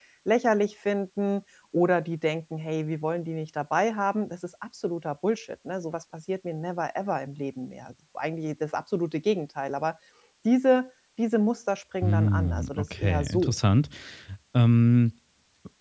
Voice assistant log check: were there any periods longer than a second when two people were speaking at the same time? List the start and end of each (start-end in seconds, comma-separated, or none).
12.0-13.5